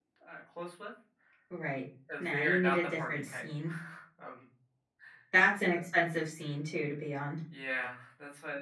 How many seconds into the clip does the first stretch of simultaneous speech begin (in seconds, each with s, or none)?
2.2 s